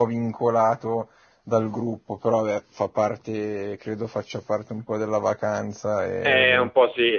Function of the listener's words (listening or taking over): taking over